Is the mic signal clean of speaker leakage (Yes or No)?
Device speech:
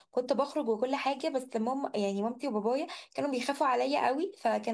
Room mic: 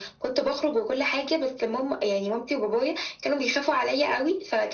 No